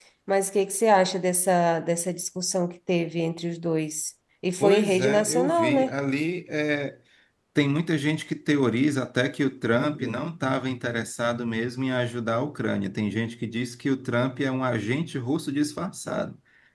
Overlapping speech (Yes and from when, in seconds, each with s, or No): Yes, from 4.6 s